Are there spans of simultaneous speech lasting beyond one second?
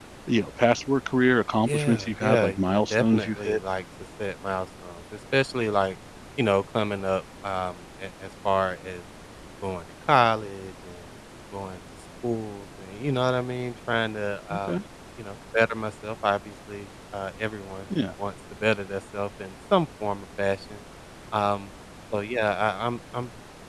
Yes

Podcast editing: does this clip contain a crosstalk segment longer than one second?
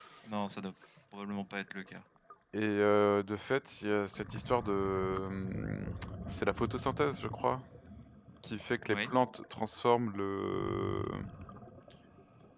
No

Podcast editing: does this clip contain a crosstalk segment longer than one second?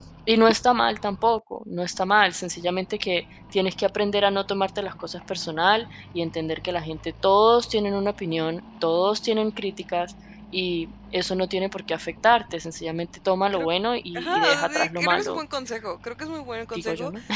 Yes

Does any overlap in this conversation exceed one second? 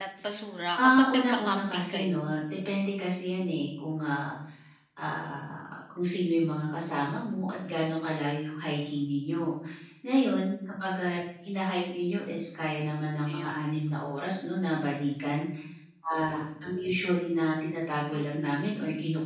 Yes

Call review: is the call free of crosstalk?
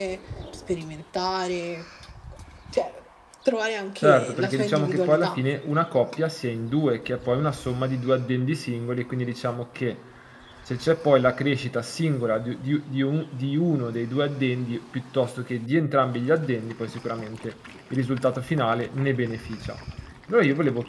No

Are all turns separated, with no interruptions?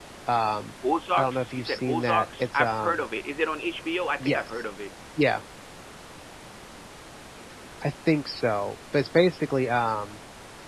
No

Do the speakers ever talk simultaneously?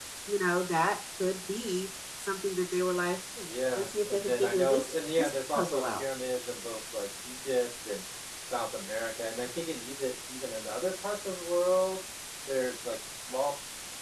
Yes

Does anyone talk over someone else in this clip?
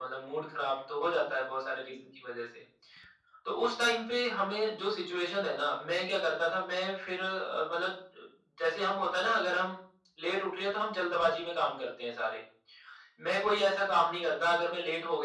No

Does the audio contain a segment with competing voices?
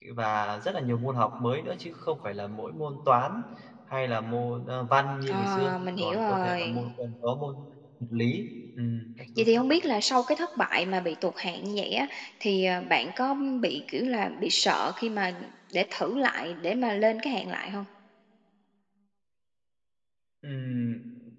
Yes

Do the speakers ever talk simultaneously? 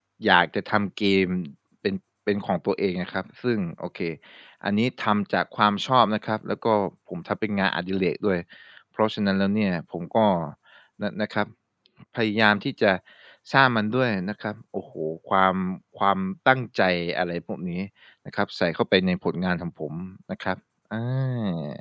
No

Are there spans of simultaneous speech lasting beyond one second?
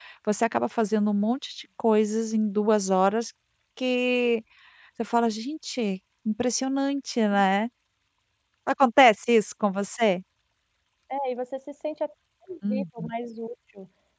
No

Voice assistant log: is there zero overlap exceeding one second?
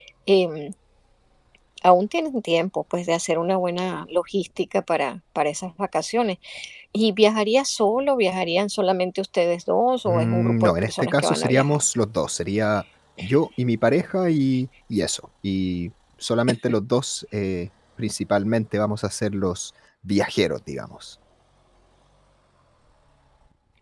No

